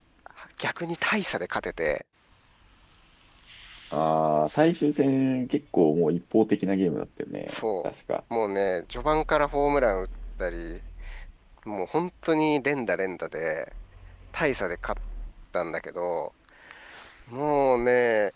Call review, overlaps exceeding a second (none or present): none